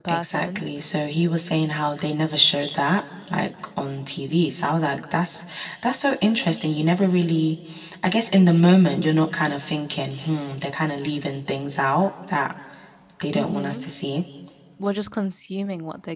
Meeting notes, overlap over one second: none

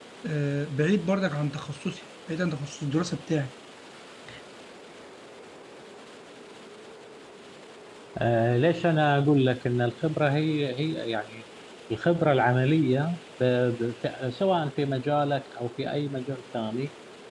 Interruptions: none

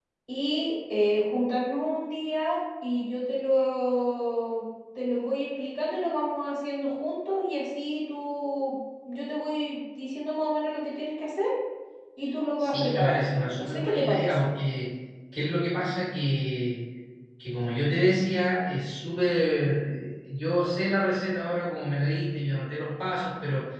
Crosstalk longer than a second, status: present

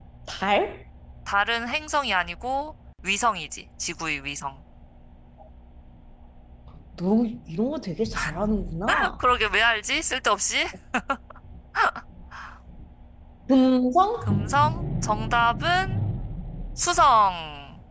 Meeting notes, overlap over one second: none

